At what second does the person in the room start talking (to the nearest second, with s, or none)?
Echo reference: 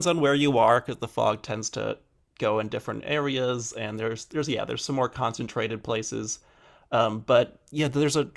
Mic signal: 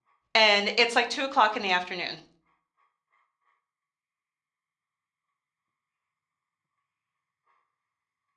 0 s